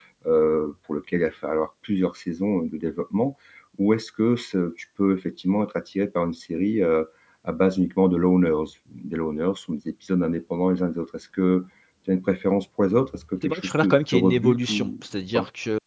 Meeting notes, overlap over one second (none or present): present